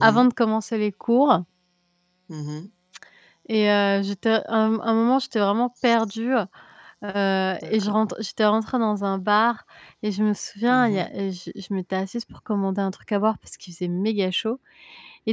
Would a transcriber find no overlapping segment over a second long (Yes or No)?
Yes